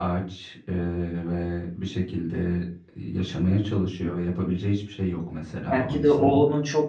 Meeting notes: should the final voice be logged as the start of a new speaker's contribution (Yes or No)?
Yes